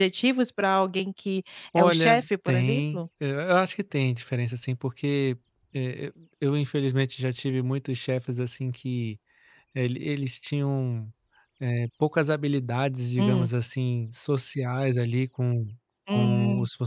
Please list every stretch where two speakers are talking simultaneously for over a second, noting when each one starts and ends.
1.8-3.0

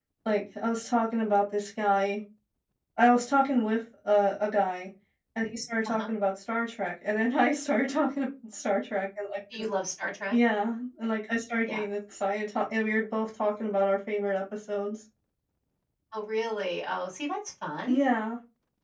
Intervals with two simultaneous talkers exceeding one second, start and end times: none

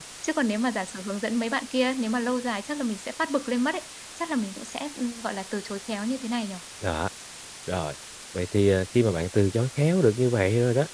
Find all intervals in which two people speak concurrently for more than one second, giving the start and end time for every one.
none

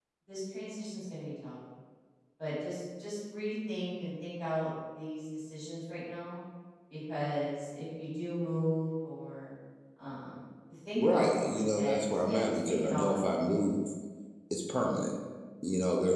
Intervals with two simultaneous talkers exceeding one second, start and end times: 11.0-13.3

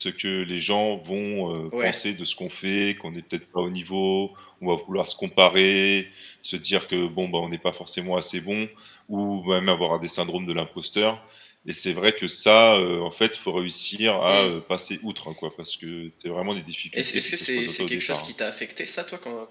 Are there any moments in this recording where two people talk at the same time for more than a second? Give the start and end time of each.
16.9-18.3

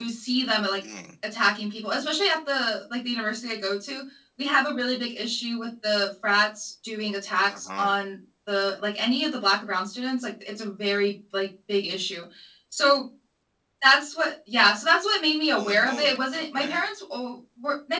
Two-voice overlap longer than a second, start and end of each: 15.5-16.8

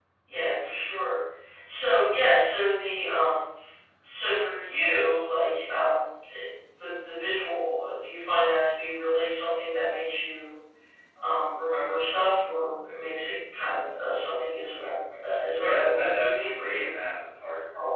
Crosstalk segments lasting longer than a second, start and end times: 15.6-16.8

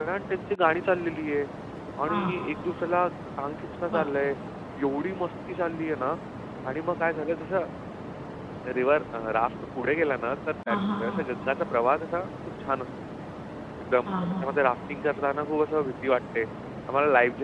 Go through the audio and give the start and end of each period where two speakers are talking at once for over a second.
none

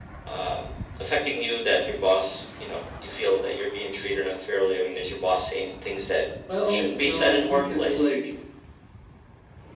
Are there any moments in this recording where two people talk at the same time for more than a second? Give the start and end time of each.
6.7-8.1

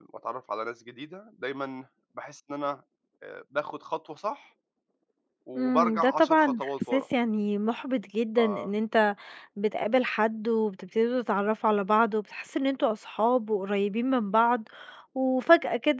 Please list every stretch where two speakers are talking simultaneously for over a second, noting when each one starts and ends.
5.6-7.0

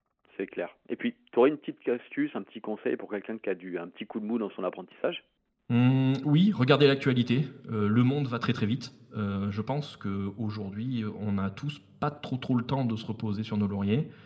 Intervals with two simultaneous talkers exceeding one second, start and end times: none

